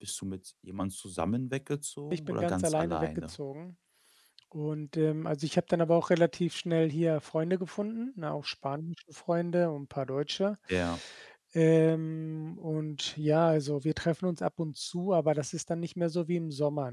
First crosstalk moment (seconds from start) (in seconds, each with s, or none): 2.1 s